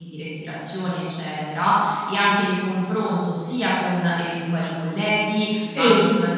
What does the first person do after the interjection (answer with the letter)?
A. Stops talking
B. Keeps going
B